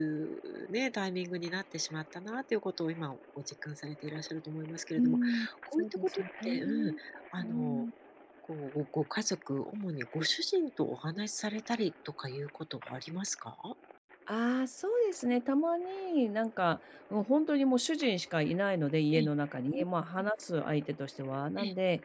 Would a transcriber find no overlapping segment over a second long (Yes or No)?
No